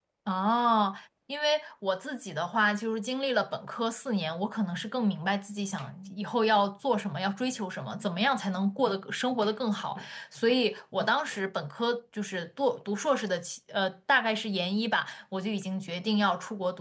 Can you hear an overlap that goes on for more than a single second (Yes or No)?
No